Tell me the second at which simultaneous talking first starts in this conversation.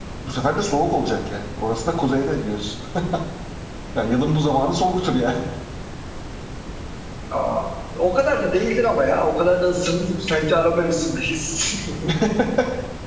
none

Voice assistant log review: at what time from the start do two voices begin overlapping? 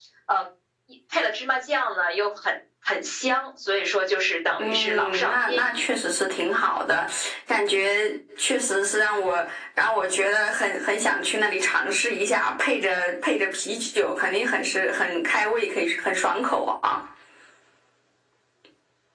4.6 s

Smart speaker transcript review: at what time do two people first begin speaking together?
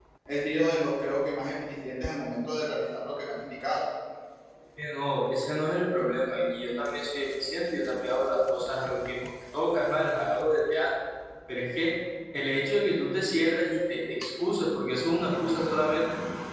none

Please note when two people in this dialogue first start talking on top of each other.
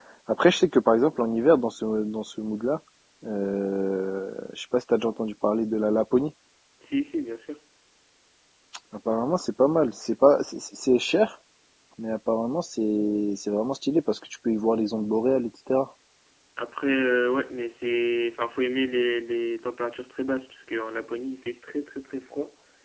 none

